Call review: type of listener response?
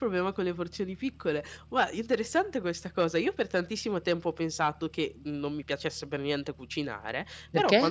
listening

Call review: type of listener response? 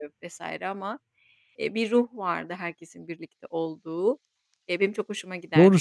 taking over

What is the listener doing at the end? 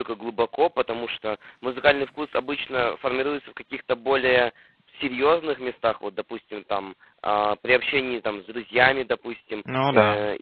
listening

